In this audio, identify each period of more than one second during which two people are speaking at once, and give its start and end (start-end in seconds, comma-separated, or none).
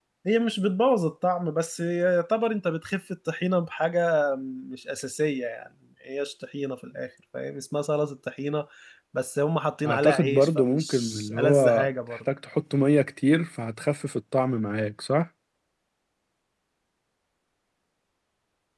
9.8-12.2